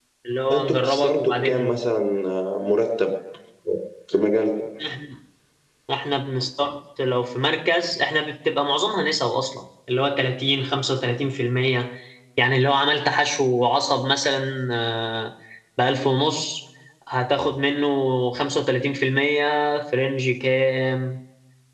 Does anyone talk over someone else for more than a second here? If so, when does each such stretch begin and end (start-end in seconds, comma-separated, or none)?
0.5-1.8